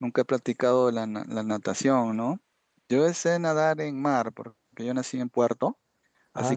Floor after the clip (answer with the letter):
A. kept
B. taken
A